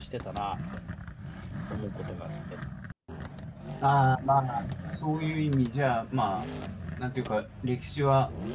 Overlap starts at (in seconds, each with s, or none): none